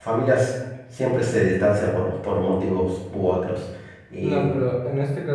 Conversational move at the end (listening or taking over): taking over